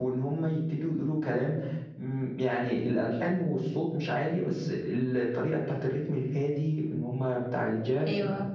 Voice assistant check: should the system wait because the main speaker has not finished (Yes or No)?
Yes